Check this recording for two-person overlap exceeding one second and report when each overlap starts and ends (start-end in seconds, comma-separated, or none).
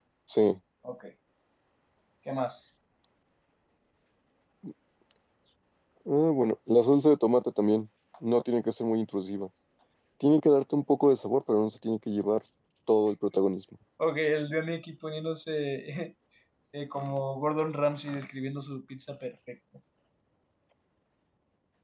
none